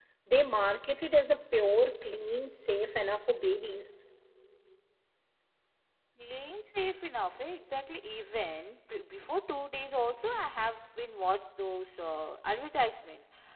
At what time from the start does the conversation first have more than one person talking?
none

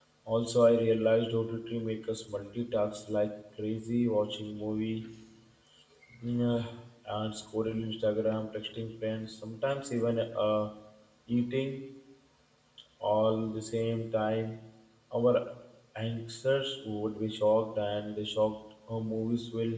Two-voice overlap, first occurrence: none

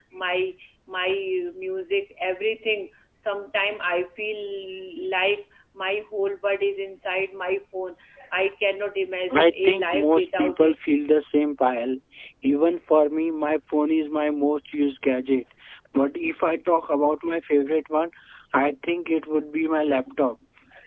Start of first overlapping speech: 9 s

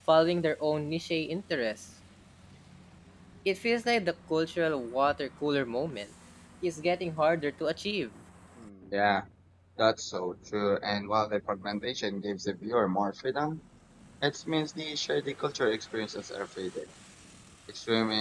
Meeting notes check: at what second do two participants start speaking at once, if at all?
none

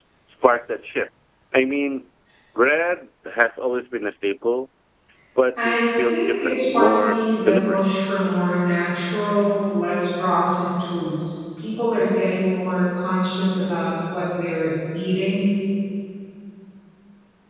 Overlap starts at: 6 s

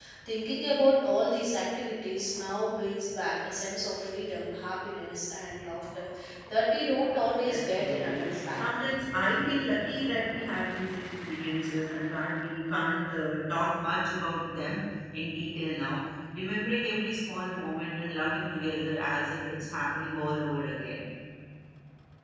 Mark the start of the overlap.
7 s

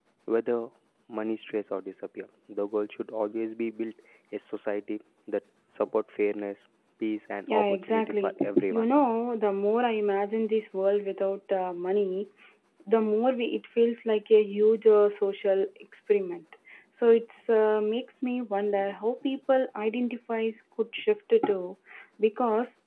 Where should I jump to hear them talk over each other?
7 s

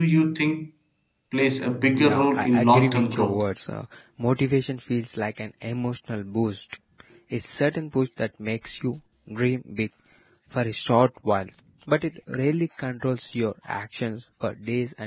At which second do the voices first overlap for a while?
2 s

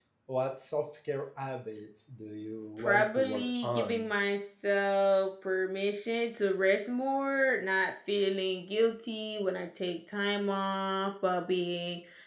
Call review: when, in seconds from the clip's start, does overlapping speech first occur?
3 s

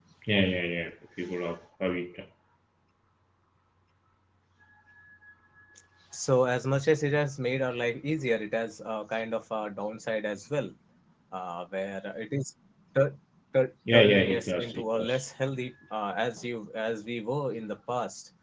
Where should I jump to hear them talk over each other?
14 s

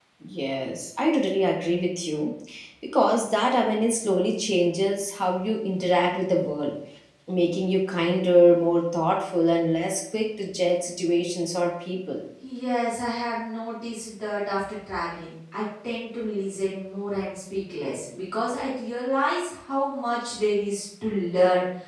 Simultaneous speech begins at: none

